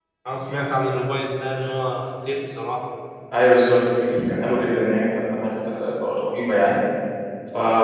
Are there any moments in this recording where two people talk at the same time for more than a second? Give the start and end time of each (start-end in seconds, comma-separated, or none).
none